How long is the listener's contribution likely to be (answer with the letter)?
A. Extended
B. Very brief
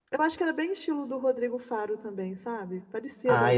A